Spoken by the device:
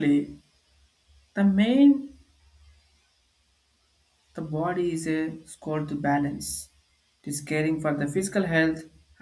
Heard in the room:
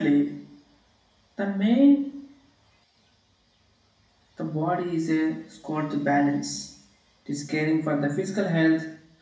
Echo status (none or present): present